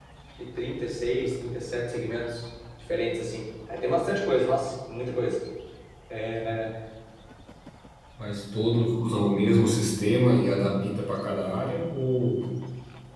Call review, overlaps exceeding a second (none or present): none